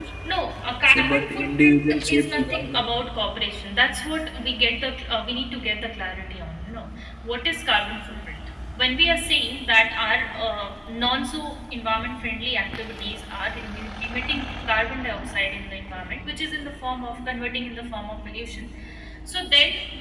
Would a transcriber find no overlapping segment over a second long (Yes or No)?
No